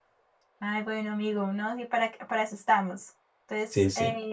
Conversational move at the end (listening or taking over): listening